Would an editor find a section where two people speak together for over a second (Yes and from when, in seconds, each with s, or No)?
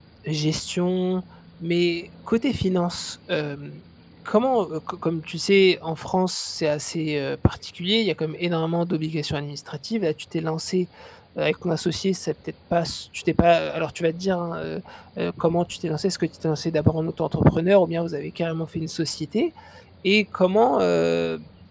No